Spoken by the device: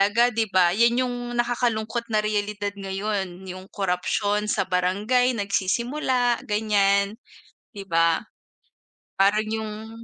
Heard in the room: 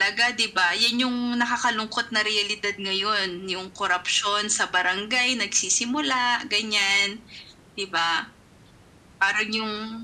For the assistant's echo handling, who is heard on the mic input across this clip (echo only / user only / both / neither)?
echo only